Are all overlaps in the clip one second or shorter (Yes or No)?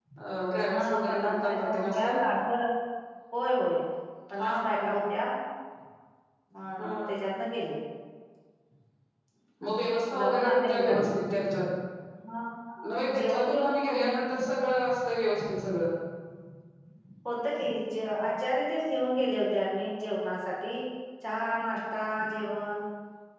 No